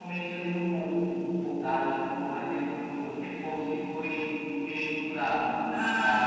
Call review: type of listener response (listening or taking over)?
taking over